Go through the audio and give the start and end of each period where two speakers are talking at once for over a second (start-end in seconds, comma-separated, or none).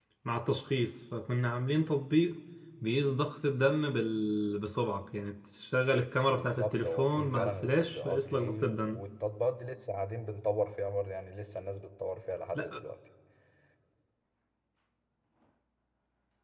6.3-9.0